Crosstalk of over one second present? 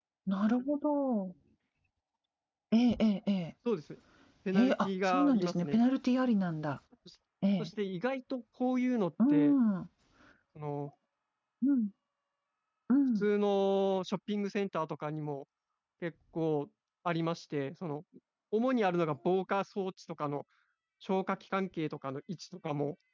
Yes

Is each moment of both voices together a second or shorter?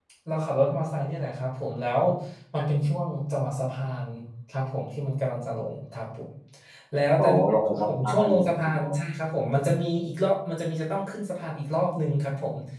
No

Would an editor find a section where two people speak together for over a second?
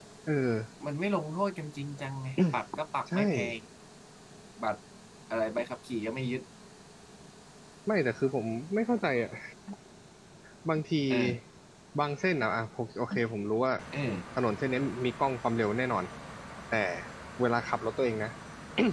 No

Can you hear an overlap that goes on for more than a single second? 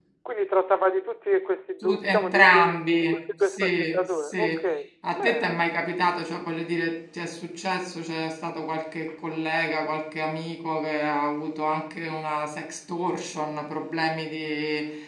Yes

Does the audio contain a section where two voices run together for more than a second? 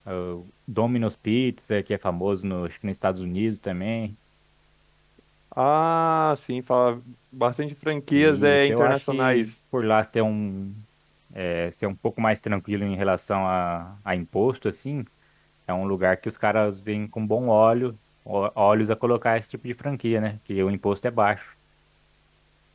Yes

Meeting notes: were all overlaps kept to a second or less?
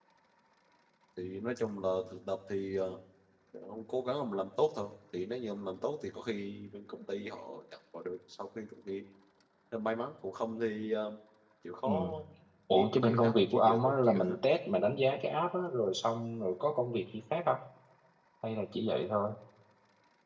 No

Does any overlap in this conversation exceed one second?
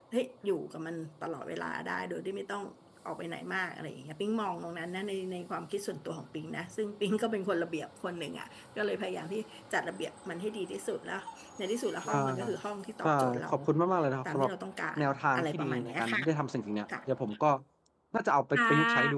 Yes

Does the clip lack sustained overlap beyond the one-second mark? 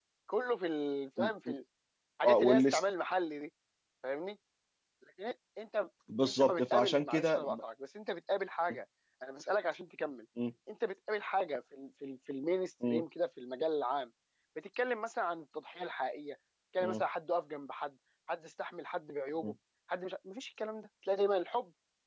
No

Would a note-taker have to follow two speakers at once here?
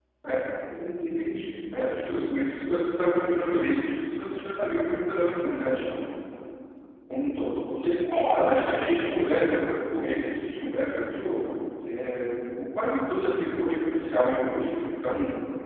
Yes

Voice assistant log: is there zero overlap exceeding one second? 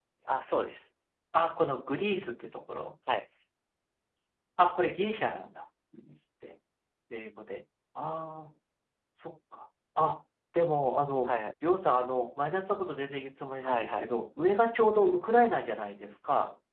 Yes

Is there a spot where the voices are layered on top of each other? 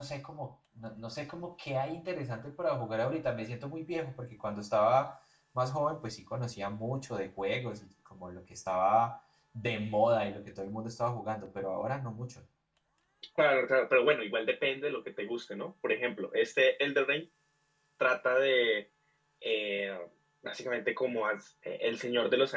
No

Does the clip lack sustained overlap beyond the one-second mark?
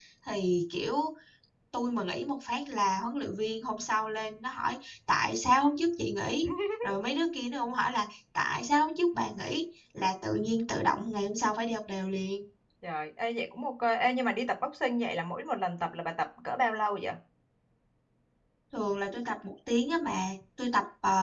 Yes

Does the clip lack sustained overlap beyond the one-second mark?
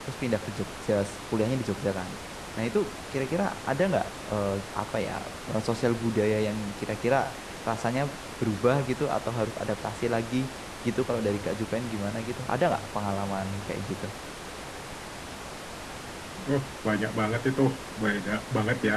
Yes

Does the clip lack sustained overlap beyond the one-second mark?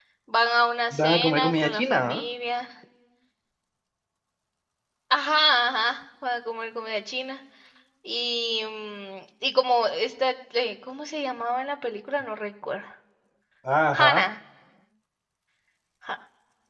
No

